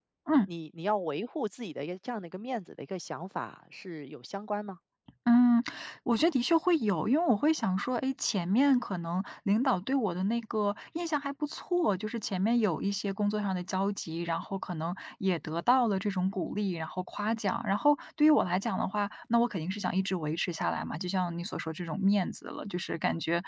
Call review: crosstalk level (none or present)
none